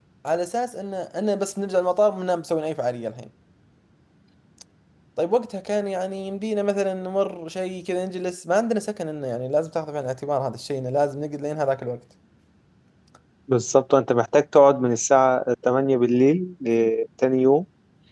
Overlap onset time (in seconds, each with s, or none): none